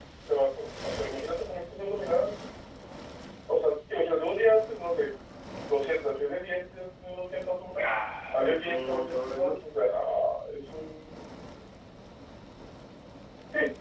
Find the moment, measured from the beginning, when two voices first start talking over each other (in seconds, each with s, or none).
8.3 s